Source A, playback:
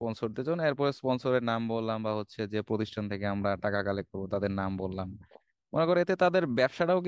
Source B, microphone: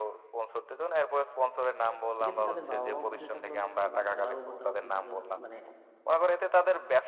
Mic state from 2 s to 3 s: both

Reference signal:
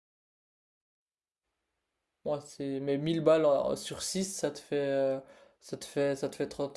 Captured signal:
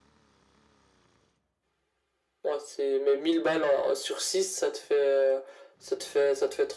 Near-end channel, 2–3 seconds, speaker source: echo only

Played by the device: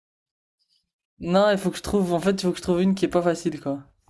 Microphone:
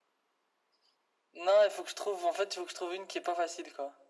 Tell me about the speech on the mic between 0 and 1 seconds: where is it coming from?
neither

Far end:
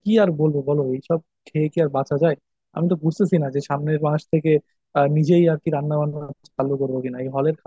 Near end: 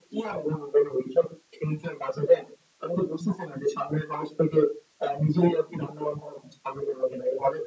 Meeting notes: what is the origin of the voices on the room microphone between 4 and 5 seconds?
echo only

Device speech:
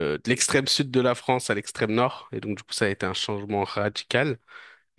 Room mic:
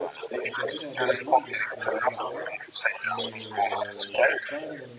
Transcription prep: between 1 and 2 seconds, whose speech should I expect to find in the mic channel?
both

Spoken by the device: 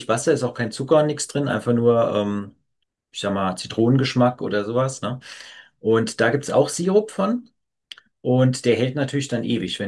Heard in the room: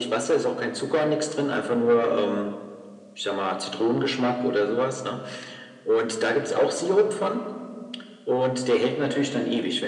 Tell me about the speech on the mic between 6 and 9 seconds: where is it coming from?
echo only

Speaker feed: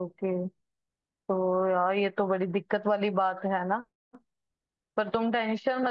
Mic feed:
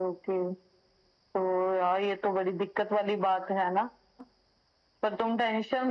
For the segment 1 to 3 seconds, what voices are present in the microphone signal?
echo only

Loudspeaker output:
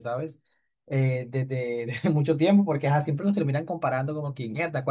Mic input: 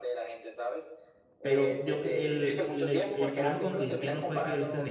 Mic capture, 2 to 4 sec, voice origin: both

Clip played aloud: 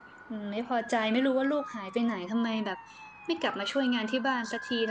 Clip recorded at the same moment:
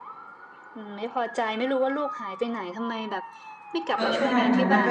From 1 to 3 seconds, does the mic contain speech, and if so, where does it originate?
echo only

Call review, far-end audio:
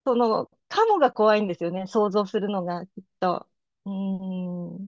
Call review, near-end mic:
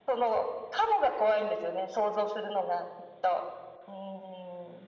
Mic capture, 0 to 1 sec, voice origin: echo only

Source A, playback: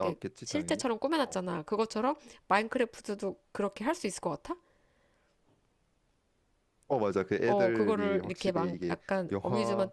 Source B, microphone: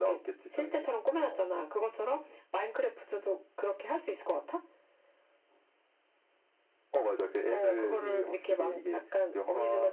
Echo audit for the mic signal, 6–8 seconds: echo only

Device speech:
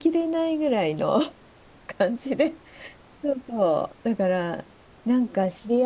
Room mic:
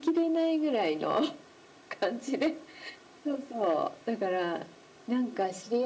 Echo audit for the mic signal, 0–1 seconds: echo only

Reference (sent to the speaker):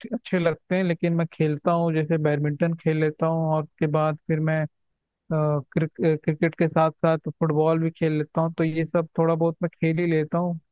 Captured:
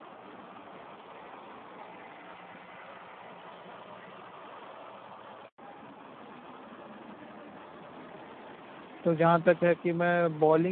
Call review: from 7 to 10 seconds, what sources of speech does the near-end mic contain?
user only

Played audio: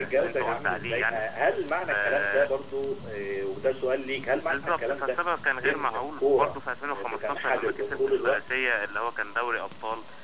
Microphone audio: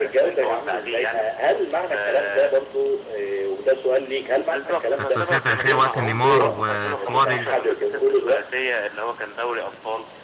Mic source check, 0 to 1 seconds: echo only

